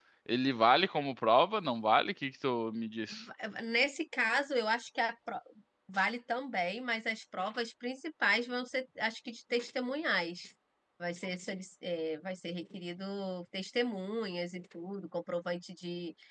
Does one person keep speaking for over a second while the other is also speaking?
No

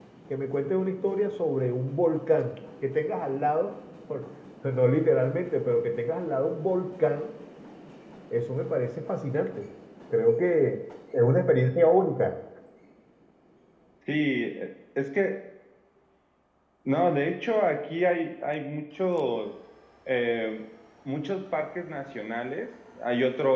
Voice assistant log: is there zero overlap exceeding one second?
Yes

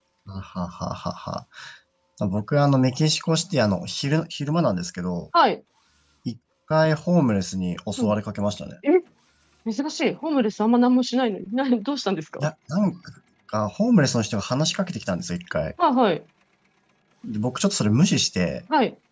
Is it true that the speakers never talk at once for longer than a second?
Yes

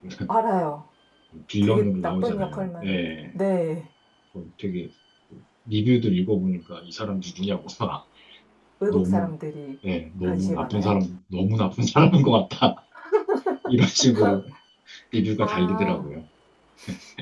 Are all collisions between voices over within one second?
No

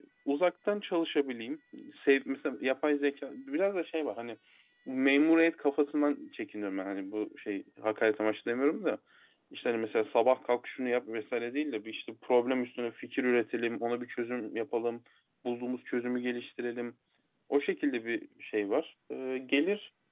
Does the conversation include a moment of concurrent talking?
No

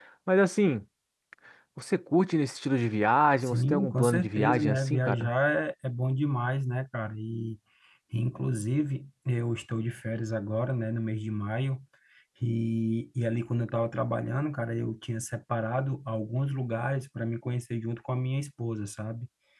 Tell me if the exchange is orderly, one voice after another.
No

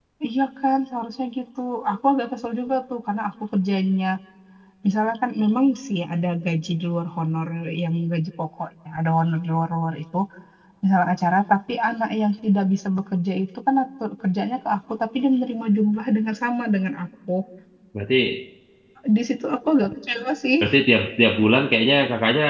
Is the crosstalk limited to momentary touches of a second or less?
Yes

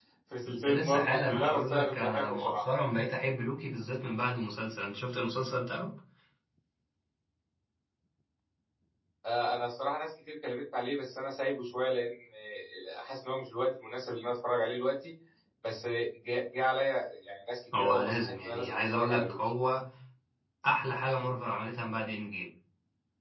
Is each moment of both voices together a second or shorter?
No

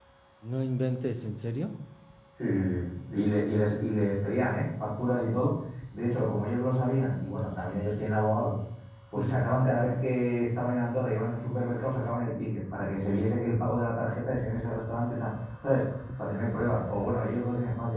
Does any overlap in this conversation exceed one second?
No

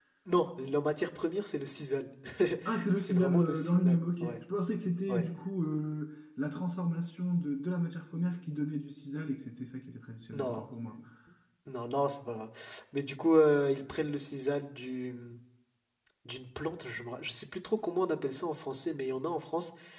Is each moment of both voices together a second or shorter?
No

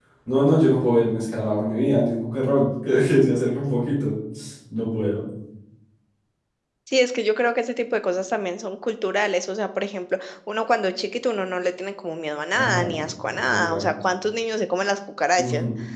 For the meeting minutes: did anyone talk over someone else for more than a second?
No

